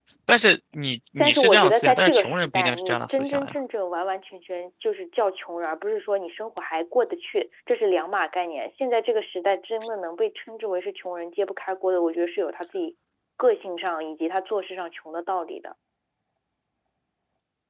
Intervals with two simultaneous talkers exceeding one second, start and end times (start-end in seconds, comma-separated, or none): 1.2-3.5